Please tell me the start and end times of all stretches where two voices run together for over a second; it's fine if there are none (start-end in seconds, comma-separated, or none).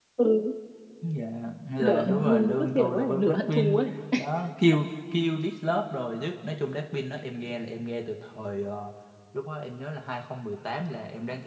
1.8-3.8